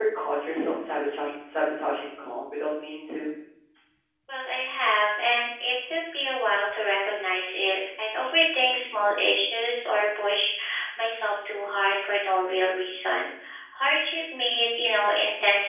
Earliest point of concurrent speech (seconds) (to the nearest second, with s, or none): none